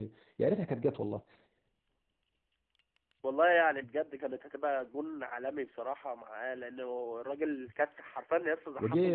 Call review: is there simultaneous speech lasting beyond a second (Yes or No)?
No